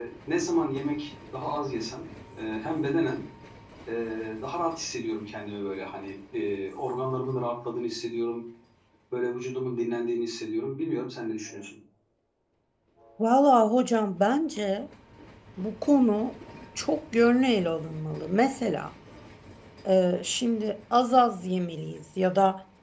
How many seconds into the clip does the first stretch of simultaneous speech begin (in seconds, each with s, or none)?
none